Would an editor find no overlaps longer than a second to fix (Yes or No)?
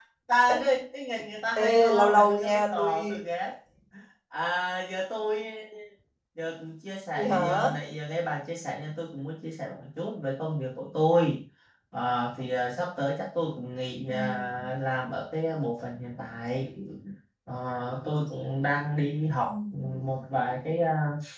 No